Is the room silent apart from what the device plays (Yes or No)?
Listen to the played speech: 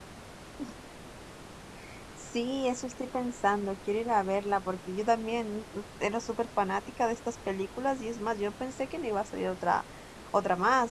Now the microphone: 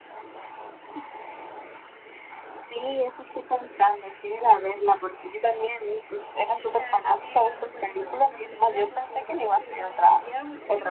No